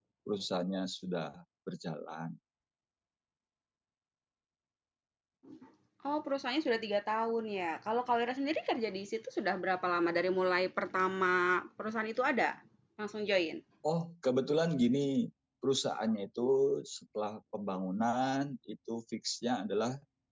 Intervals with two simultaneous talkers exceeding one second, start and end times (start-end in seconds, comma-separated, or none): none